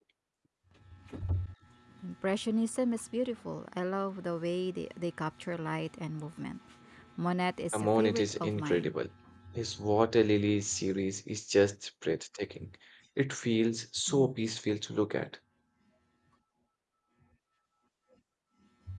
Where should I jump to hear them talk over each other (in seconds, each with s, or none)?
7.7 s